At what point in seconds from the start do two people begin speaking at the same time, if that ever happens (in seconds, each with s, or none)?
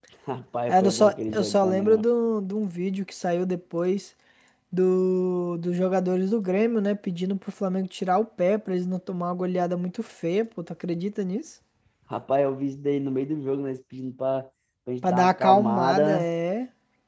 0.7 s